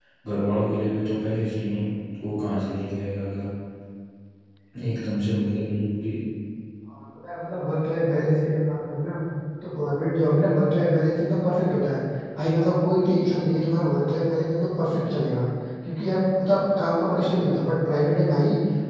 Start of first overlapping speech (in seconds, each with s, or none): none